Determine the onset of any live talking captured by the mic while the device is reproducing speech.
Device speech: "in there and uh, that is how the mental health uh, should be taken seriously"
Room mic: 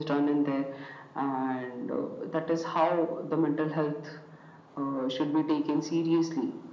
none

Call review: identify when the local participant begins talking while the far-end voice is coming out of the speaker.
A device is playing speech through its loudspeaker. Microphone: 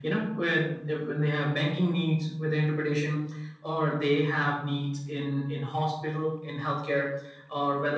none

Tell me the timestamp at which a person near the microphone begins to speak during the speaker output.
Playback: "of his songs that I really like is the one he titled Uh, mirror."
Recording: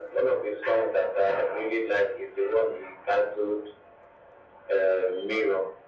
none

